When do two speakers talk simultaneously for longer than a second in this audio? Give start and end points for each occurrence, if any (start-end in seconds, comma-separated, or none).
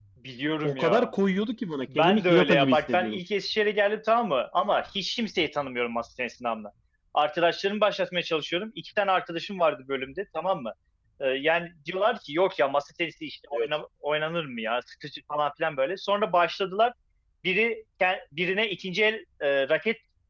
2.0-3.2